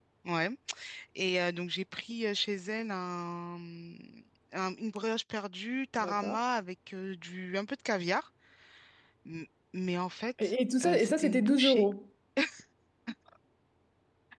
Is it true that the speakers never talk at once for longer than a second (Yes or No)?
No